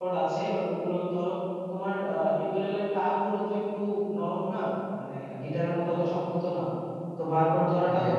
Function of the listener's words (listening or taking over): listening